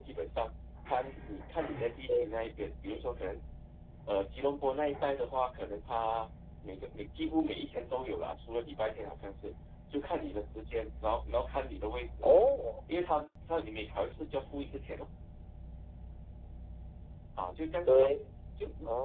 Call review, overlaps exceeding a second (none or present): none